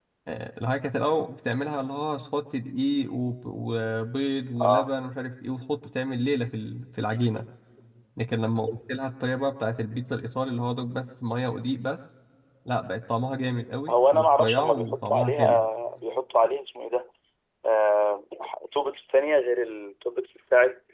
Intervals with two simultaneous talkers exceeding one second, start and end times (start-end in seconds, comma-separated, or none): 13.9-15.6